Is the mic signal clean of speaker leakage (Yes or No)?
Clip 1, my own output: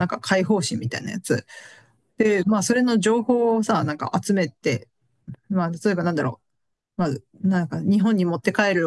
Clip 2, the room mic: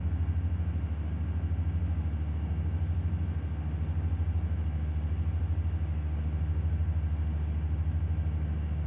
Yes